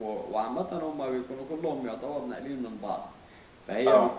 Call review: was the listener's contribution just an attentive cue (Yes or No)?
Yes